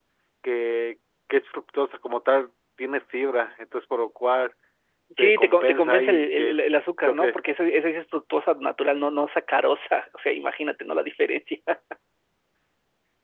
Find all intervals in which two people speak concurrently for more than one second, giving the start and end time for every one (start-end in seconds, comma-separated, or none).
5.2-6.5